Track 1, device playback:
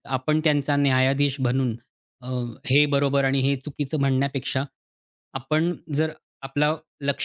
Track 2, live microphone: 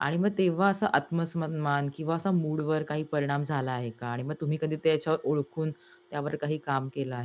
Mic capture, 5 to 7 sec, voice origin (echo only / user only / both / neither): user only